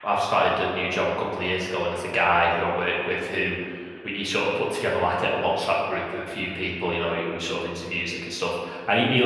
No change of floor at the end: Yes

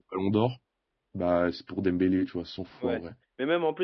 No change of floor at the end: No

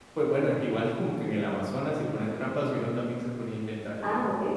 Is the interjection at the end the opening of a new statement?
Yes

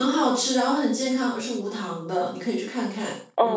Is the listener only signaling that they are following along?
No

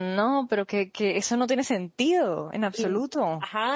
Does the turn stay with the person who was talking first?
No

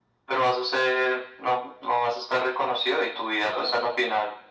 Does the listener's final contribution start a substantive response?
No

